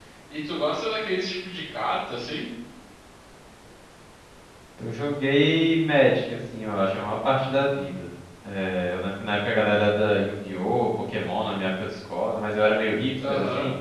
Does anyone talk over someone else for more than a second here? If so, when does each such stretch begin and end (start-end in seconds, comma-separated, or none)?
none